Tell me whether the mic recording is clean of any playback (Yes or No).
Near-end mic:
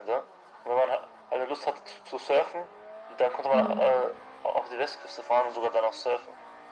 No